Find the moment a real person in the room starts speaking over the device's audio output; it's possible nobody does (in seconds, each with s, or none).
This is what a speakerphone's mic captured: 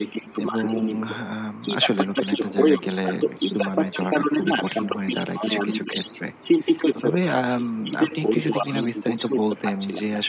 0.4 s